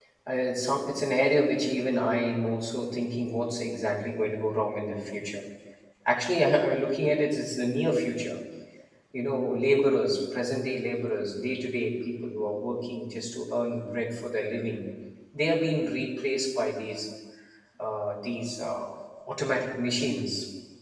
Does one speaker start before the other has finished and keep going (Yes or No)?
No